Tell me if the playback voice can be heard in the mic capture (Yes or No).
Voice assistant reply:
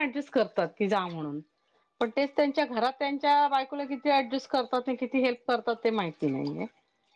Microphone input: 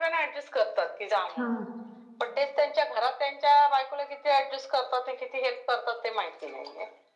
Yes